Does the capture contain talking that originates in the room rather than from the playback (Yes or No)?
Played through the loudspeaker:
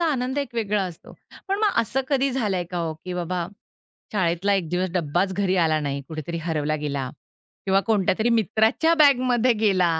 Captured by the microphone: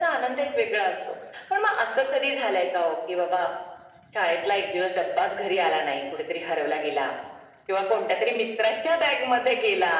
No